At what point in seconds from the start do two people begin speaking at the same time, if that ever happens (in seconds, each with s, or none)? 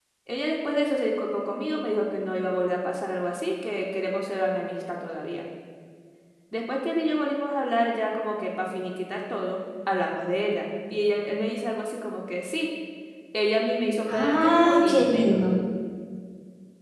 14.1 s